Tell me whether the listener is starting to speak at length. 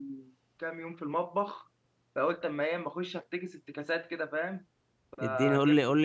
Yes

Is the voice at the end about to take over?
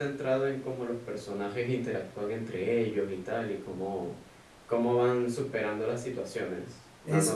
Yes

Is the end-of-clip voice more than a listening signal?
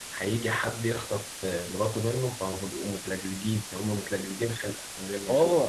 Yes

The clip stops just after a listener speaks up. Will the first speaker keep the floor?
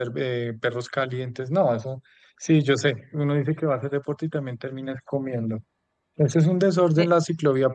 Yes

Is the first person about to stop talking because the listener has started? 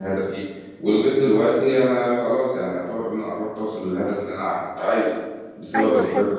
No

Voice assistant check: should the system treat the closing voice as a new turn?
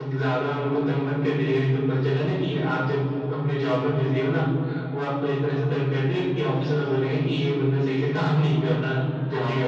Yes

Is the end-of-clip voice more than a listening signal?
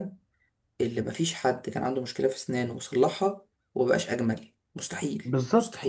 Yes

